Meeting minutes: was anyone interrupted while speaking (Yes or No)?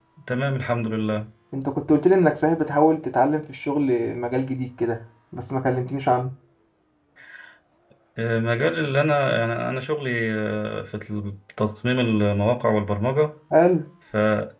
No